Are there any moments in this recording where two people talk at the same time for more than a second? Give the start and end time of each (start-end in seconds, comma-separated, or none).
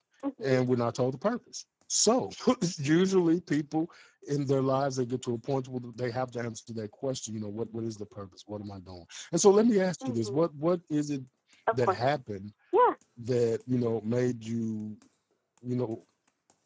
none